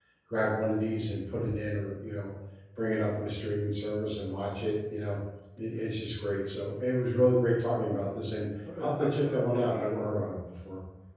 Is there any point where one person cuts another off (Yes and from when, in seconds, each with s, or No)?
Yes, from 8.6 s